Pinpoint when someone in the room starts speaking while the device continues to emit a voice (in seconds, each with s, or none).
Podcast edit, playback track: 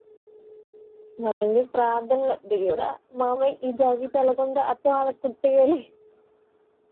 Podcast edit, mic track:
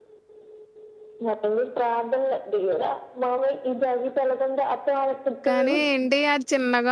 5.5 s